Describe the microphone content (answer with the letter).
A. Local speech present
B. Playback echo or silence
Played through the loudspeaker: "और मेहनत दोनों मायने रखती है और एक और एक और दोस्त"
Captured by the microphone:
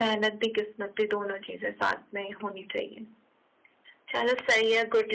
A